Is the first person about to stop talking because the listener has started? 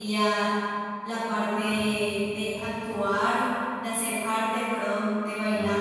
No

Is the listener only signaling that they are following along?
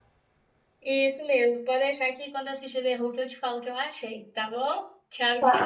No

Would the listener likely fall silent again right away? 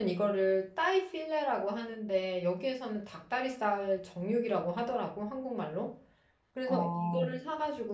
Yes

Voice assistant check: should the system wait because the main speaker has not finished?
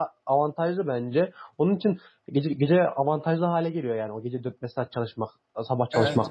No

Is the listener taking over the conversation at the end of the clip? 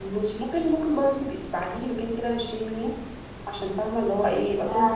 Yes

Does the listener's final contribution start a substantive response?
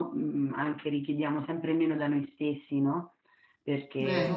No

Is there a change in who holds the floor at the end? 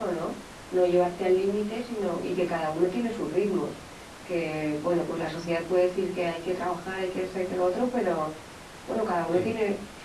No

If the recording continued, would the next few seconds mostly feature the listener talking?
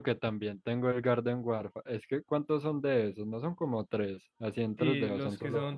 Yes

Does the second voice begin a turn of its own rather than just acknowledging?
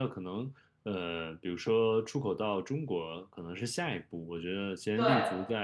No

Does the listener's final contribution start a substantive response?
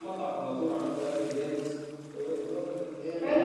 Yes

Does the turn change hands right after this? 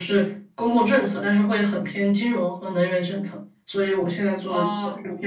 No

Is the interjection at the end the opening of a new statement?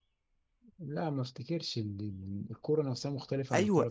Yes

